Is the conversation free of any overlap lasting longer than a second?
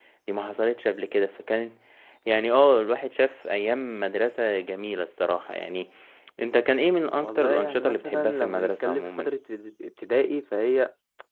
No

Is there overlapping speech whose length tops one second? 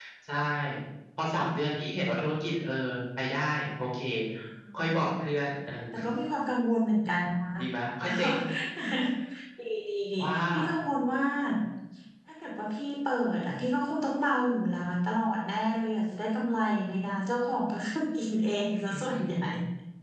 No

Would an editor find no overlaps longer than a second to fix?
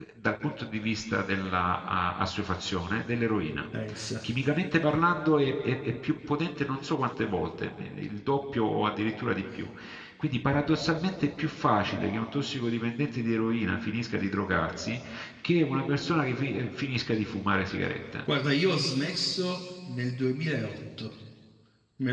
Yes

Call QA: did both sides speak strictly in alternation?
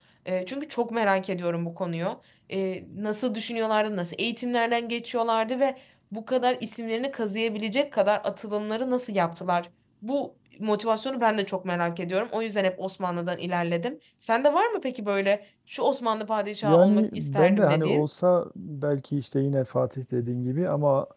No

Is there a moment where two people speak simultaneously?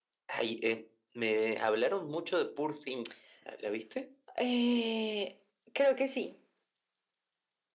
No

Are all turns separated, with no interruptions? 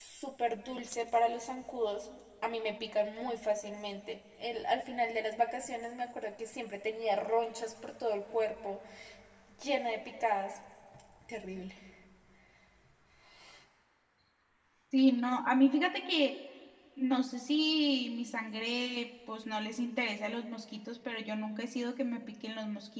Yes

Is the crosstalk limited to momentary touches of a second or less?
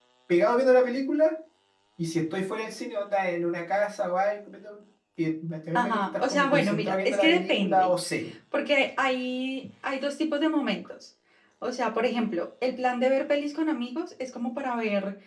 No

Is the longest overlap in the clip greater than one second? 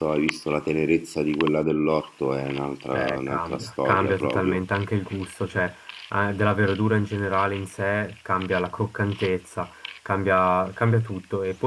Yes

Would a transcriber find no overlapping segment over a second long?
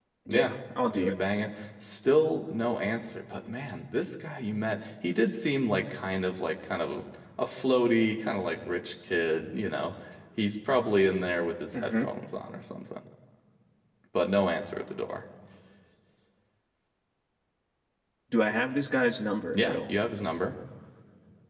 Yes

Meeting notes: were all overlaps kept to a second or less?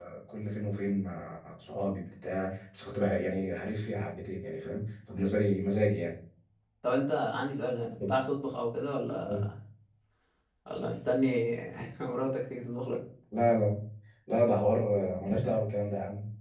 Yes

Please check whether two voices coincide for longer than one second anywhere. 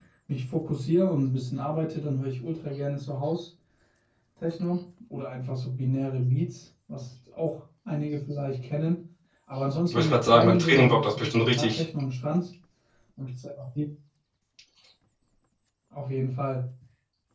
Yes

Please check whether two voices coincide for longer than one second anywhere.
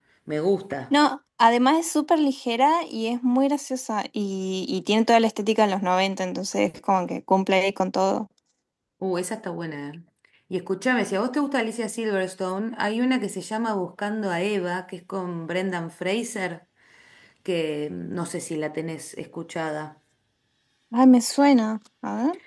No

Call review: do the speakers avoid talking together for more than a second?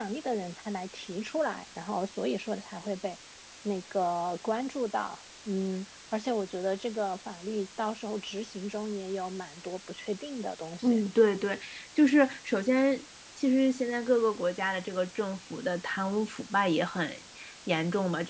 Yes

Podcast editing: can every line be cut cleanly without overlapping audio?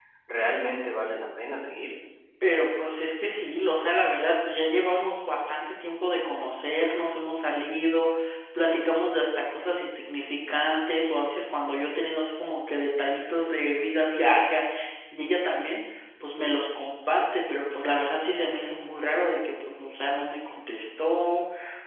Yes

